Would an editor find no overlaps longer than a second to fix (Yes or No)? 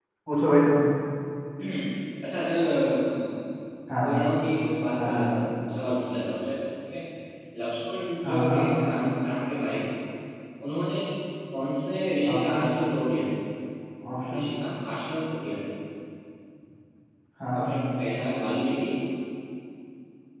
Yes